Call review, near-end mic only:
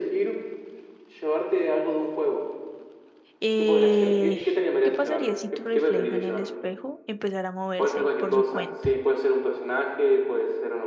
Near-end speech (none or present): present